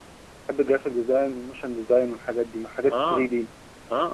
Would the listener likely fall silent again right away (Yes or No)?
No